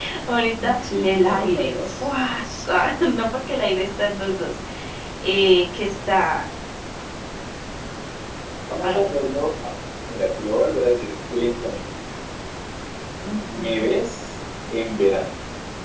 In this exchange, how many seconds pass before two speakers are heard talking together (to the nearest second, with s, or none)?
1 s